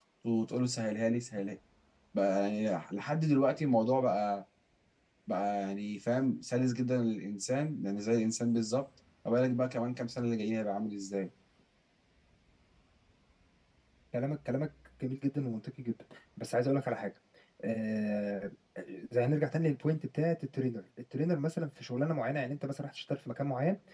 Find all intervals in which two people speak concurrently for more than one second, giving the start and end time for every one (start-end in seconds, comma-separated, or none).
none